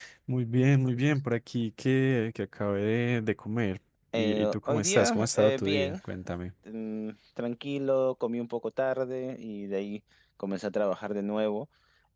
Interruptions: present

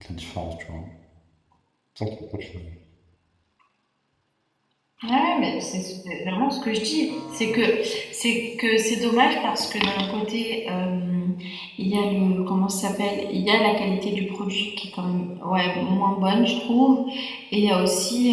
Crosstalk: none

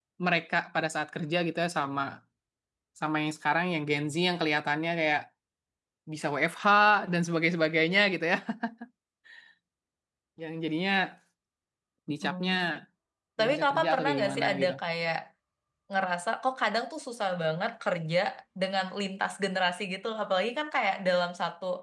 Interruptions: present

